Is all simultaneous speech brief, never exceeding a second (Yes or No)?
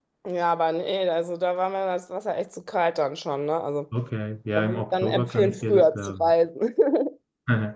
No